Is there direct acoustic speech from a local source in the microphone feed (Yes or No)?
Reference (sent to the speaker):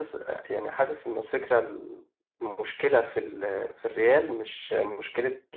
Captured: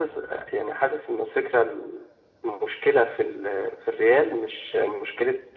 No